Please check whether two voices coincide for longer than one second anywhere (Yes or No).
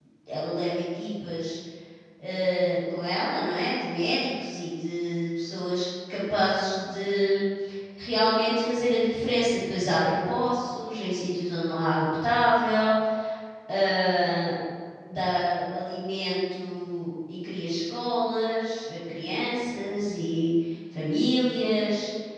No